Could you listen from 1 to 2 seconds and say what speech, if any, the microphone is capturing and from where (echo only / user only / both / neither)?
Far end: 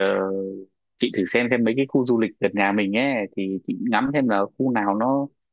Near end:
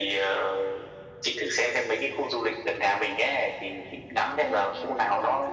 echo only